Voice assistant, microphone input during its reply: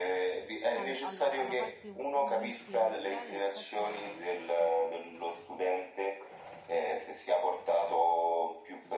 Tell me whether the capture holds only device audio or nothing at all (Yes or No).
No